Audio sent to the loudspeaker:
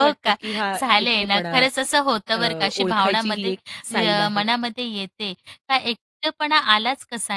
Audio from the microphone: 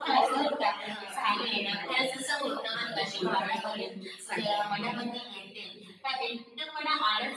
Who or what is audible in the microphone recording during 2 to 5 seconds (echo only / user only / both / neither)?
echo only